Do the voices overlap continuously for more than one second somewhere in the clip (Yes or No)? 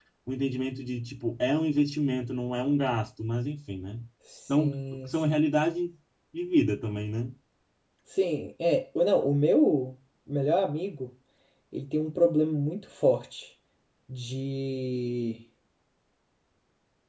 No